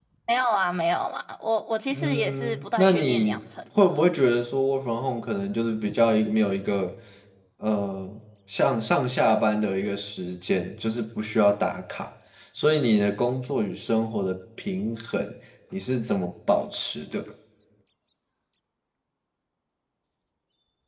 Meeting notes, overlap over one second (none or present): present